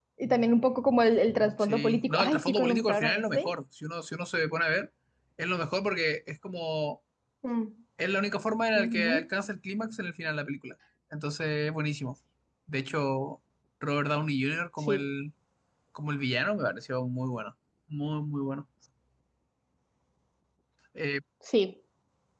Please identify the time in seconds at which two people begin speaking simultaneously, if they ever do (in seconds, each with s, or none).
1.6 s